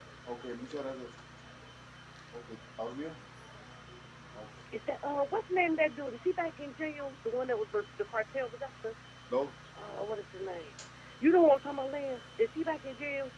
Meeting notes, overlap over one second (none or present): none